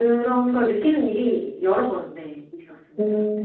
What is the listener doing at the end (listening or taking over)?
taking over